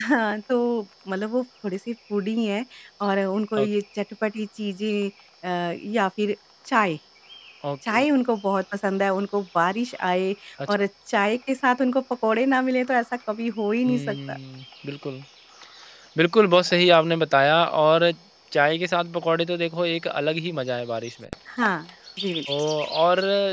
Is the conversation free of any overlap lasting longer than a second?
Yes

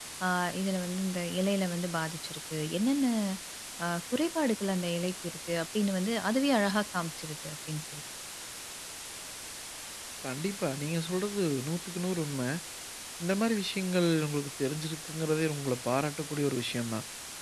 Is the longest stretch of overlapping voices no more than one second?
Yes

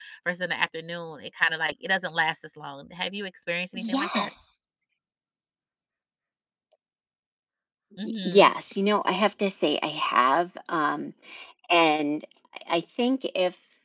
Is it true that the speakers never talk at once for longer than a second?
Yes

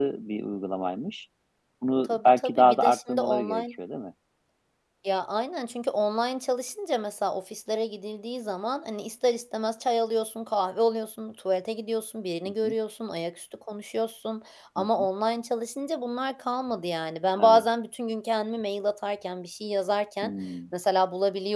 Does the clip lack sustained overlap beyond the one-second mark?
No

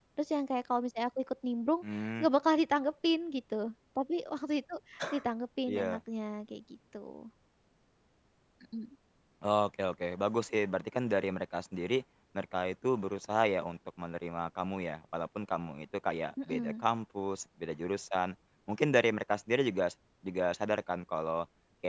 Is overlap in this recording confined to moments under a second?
Yes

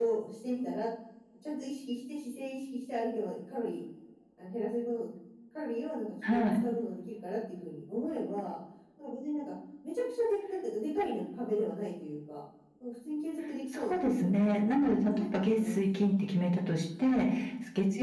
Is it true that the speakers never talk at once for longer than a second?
No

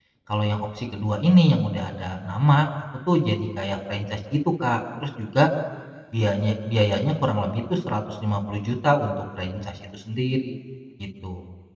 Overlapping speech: No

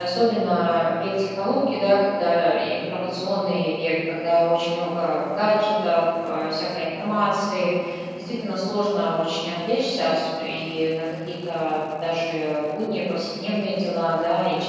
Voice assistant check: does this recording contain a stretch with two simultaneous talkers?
No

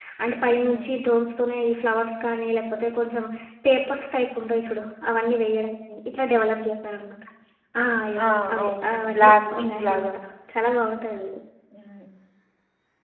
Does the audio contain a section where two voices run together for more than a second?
Yes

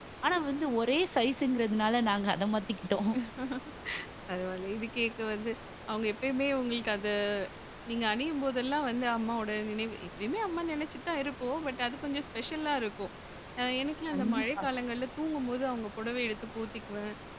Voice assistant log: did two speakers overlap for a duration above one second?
No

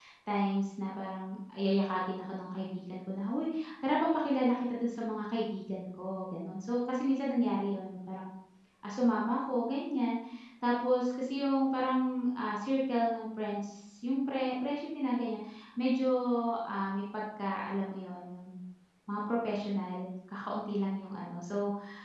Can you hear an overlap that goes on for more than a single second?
No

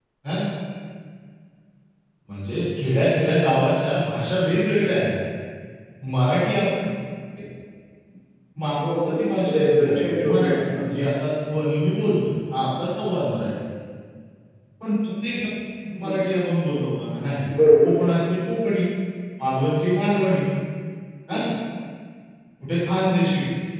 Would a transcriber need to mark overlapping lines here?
Yes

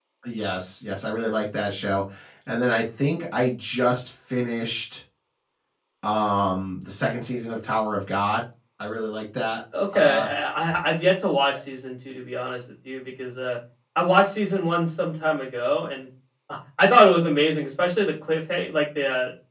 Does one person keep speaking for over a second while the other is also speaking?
No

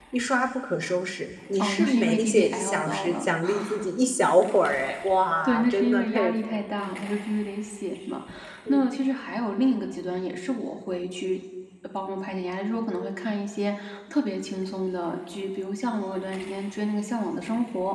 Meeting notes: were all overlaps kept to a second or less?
No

